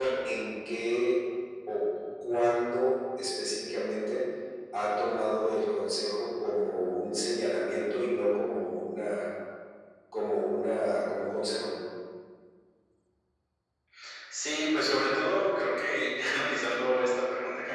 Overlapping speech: No

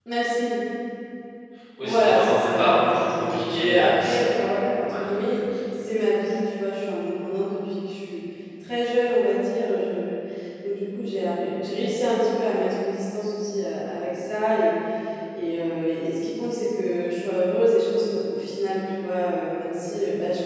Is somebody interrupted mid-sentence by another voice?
Yes, from 1.8 s

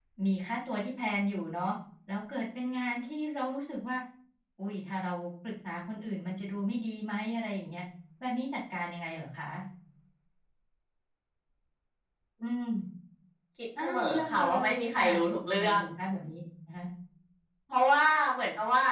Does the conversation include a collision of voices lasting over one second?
Yes, from 13.8 s

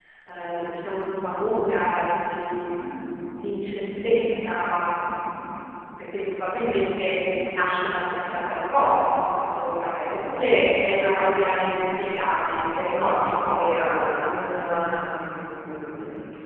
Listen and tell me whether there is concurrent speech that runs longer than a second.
No

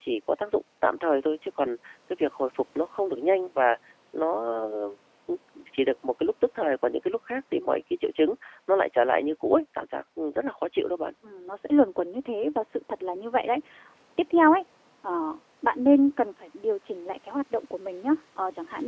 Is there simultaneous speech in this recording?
No

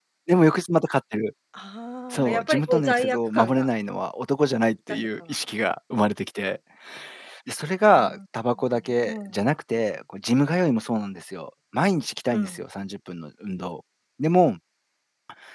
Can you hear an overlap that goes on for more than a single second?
Yes, from 2.1 s

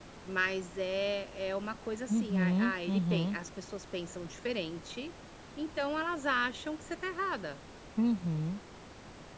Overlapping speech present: Yes, from 2.1 s

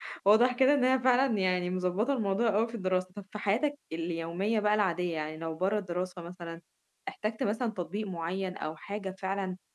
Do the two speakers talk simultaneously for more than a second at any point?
No

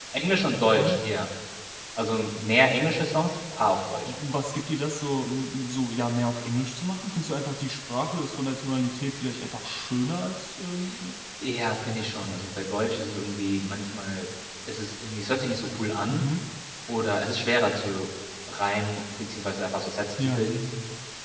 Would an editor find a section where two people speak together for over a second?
No

